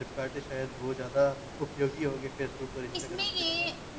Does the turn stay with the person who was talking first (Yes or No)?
No